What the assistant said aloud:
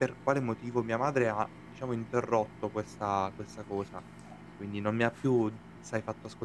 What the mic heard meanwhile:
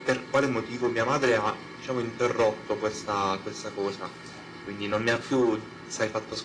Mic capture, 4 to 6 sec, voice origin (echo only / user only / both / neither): echo only